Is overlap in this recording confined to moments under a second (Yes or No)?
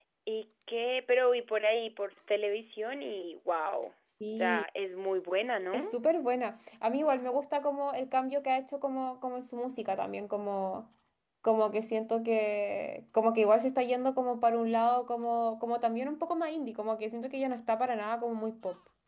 Yes